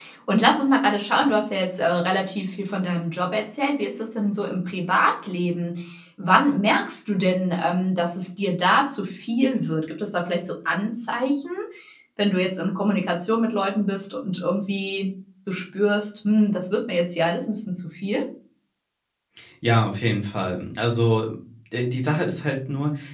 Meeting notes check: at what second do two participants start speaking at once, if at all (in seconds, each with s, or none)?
none